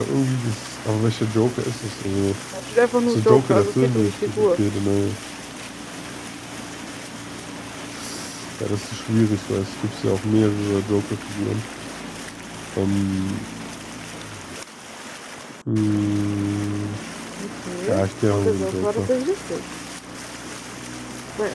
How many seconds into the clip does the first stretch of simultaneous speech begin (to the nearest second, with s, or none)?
3 s